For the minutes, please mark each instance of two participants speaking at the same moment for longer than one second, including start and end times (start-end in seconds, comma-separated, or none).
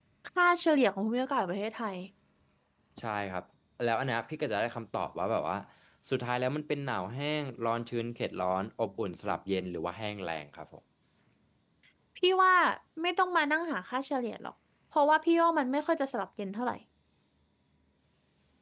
none